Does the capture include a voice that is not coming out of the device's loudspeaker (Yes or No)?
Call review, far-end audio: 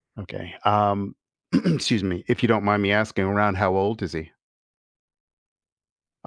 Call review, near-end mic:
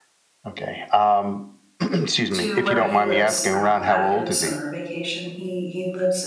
Yes